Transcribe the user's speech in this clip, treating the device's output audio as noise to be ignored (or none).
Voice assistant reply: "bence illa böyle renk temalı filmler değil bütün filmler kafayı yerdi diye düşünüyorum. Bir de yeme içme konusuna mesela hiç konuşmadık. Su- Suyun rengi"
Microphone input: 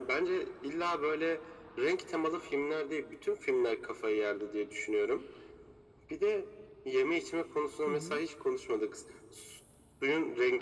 Hı hı,